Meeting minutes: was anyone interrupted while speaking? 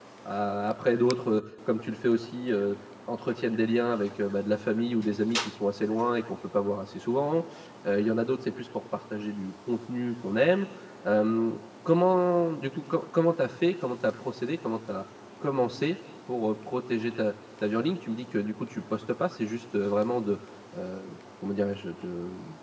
No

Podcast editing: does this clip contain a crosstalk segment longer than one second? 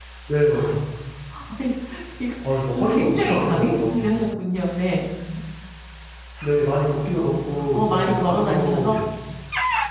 Yes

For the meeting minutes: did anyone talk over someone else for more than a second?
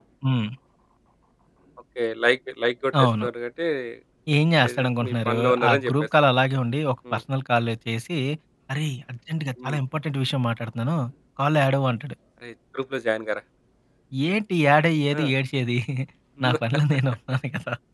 Yes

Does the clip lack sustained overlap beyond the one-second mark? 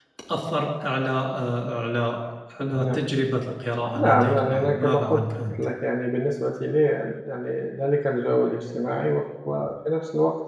No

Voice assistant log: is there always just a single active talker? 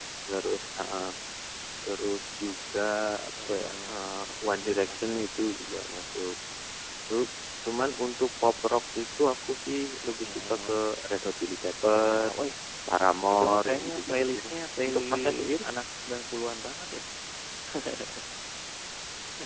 No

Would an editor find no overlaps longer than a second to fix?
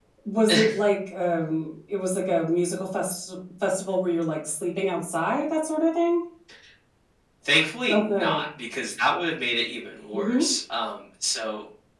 Yes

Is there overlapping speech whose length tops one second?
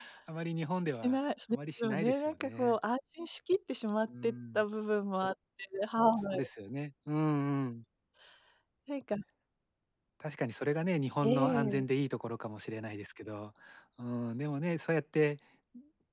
Yes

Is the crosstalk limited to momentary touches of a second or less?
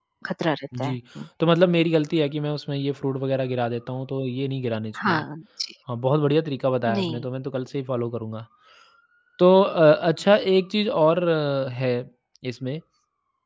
Yes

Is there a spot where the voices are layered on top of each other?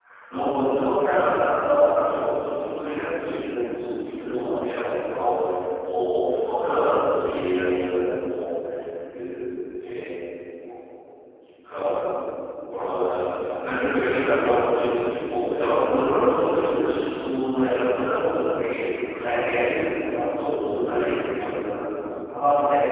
No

